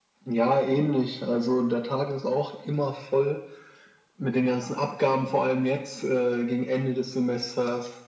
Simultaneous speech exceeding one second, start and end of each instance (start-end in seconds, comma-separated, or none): none